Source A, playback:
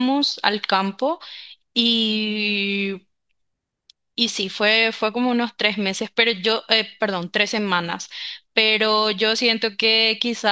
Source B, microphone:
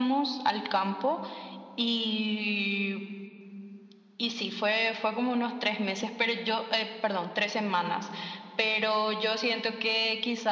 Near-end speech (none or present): none